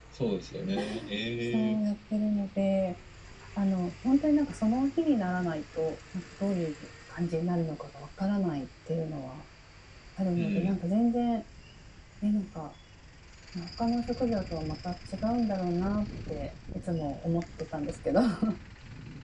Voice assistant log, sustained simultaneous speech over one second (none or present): none